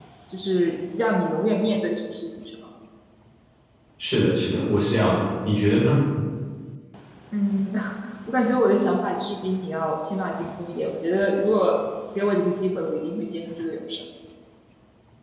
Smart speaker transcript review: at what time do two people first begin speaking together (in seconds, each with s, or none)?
none